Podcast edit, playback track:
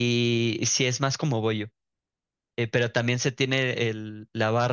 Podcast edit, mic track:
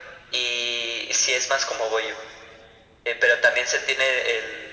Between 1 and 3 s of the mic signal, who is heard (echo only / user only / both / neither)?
echo only